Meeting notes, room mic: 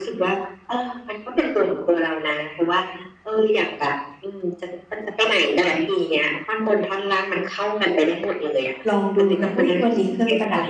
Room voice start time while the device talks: 8.9 s

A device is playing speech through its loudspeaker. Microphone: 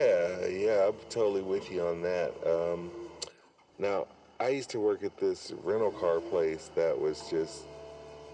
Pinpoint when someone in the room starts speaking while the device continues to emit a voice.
none

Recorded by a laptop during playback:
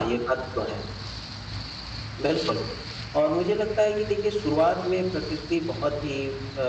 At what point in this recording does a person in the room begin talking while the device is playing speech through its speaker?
none

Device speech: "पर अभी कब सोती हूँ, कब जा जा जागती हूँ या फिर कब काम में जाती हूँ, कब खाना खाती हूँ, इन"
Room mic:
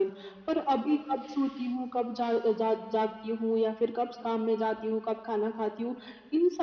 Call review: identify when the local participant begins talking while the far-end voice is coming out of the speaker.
none

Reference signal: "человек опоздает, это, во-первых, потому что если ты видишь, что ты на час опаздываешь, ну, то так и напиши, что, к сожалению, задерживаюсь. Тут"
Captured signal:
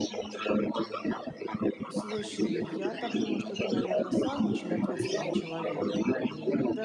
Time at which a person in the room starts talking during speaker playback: 1.9 s

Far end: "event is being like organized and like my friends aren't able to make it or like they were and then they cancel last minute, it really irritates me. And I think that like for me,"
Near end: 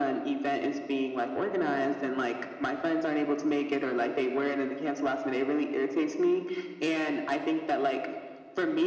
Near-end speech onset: none

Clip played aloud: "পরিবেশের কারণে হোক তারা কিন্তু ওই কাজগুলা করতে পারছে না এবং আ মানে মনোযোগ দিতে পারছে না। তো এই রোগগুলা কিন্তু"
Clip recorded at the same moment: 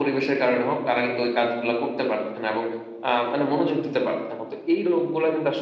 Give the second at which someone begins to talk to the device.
none

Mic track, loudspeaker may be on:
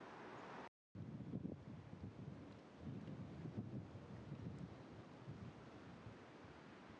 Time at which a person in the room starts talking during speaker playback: none

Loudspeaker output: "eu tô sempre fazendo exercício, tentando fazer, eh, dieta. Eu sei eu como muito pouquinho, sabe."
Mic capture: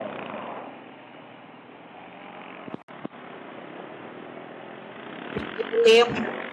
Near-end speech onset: 5.3 s

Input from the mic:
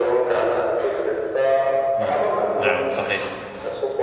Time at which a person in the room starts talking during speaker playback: 2.0 s

